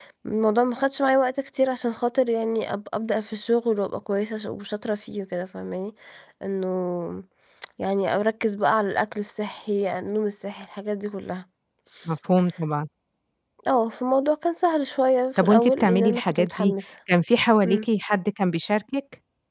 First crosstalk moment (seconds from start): 15.4 s

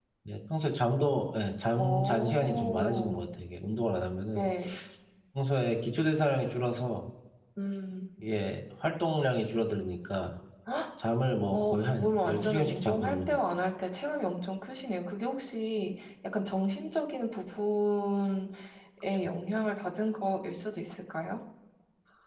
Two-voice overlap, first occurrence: 1.8 s

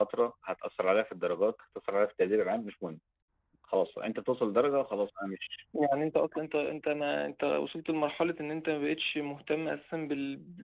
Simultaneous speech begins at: none

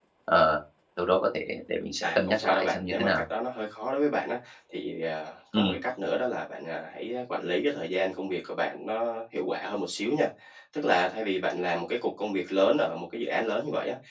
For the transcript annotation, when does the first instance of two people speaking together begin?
2.0 s

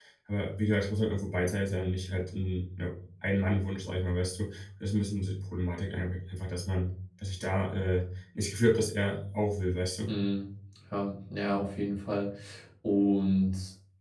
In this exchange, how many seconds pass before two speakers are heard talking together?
none

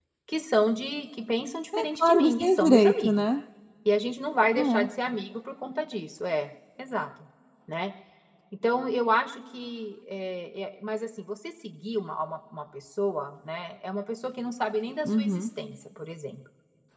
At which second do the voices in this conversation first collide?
1.8 s

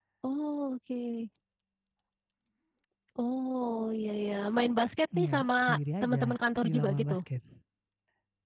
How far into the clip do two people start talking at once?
5.1 s

